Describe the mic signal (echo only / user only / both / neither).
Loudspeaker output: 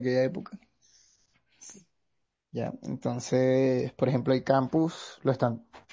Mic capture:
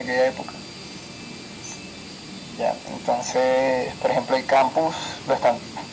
echo only